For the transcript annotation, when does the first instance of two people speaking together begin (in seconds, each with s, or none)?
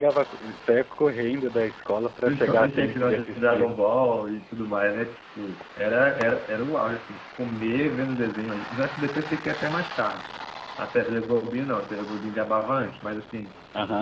2.2 s